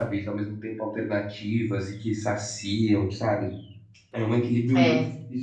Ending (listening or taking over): listening